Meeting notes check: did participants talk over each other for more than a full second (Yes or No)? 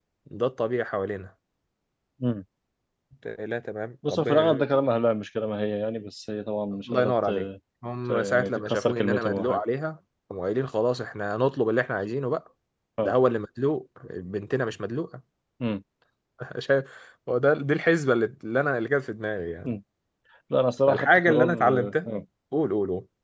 Yes